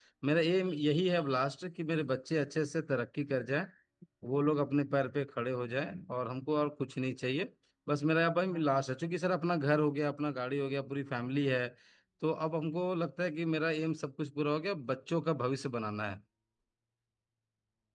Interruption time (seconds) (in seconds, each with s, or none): none